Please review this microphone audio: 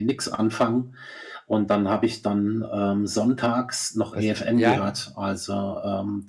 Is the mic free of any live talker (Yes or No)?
No